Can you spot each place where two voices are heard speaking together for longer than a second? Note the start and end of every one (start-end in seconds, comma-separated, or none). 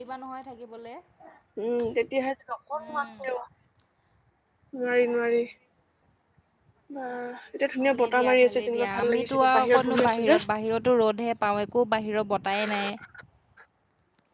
8.0-10.4